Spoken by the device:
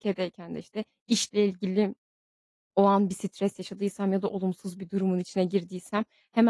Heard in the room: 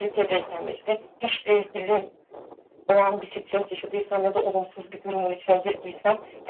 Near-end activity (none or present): none